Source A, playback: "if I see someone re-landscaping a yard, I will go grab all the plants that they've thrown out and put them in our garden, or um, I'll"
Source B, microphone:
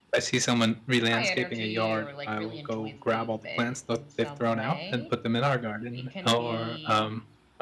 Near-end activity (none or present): present